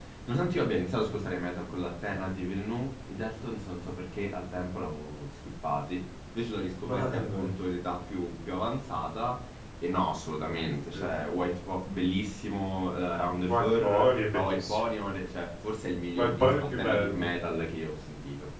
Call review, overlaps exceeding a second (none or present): present